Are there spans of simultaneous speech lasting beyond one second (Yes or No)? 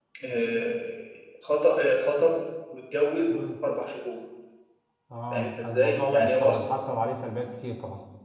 Yes